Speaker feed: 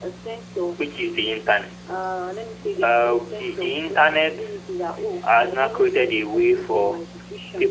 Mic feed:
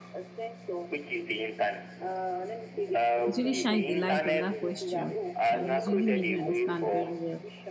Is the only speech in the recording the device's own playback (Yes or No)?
No